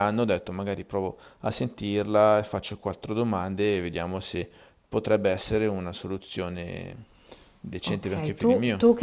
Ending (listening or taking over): taking over